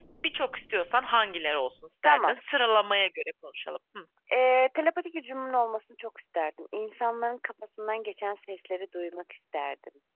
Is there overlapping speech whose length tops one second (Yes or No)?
No